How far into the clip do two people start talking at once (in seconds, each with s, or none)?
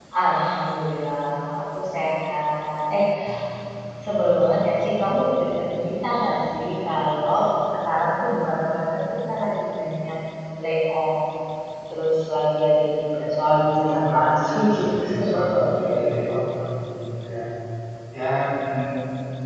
13.1 s